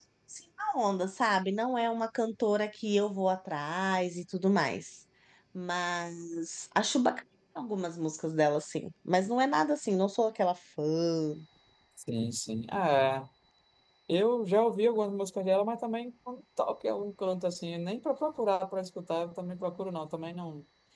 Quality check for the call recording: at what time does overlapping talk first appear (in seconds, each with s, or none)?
none